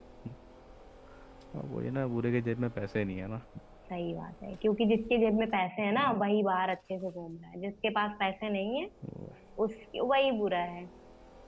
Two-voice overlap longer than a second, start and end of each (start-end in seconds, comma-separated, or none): none